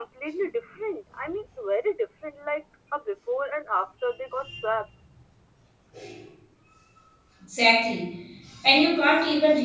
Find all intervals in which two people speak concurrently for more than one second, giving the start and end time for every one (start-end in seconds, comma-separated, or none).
none